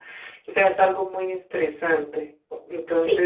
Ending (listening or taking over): taking over